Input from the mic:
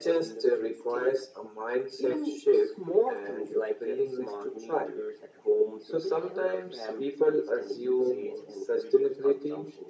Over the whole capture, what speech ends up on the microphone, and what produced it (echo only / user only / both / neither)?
echo only